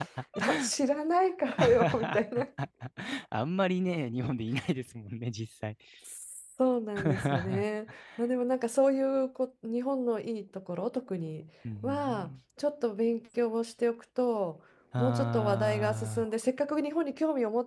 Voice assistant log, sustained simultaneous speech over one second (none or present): present